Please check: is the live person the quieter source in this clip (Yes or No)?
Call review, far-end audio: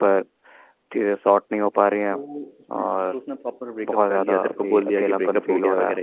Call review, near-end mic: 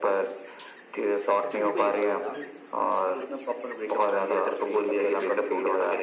Yes